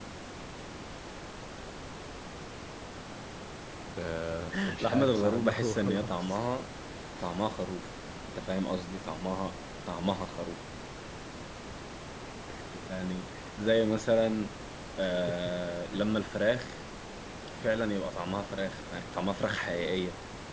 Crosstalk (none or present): present